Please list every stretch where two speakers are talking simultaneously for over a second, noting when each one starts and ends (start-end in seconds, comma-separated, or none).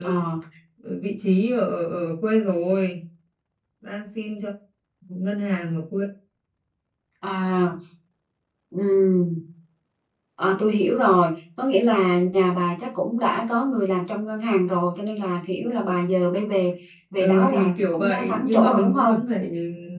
17.2-19.2